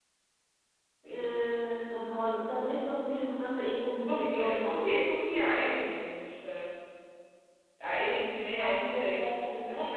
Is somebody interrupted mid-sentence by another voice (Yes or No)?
Yes